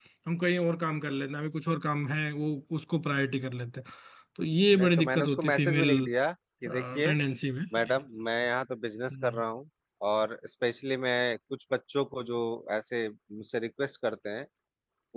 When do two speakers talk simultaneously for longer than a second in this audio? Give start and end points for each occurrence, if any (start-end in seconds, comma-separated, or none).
4.8-6.1